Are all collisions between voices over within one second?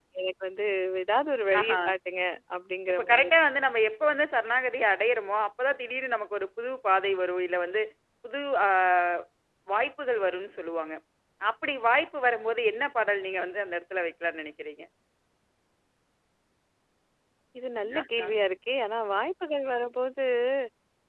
Yes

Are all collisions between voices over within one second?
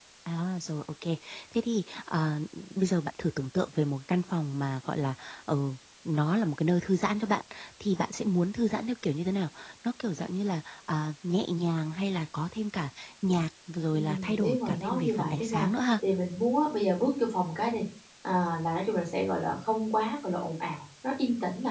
No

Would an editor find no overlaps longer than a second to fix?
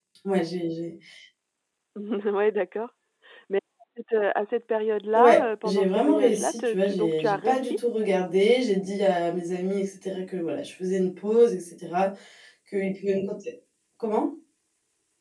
No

